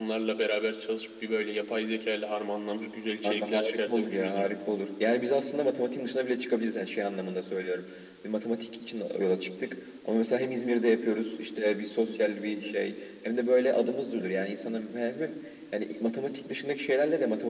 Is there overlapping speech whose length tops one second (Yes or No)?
Yes